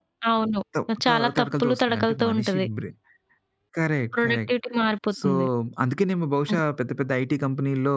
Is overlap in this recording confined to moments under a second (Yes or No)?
No